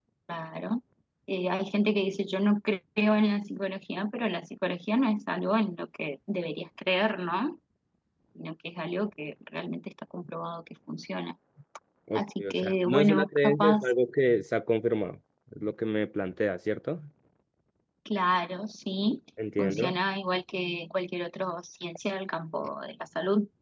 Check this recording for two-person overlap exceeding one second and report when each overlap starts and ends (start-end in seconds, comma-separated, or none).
12.2-13.8